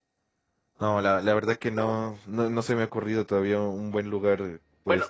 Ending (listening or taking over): taking over